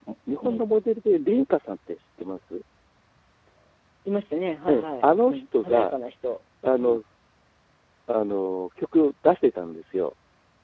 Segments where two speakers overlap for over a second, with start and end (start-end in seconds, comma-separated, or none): 4.7-5.9